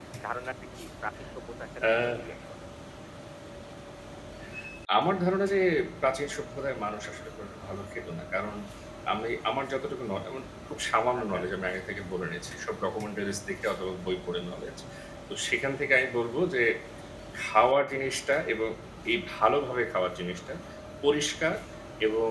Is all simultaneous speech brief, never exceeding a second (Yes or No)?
Yes